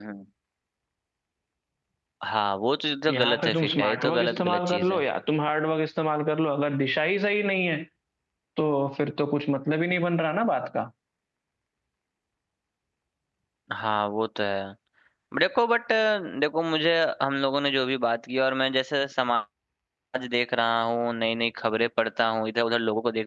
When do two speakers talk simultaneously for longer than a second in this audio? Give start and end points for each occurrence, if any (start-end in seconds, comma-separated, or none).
3.1-5.0